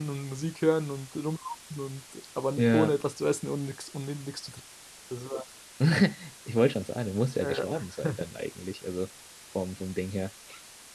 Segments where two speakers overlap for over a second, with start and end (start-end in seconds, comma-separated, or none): none